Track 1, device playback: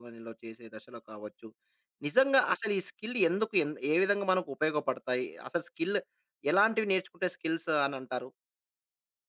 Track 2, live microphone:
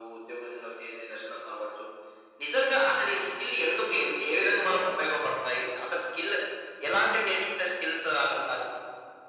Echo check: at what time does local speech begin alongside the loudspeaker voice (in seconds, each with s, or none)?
none